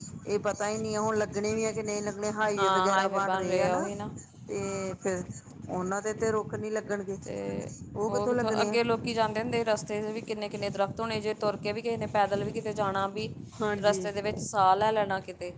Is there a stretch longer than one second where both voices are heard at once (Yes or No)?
Yes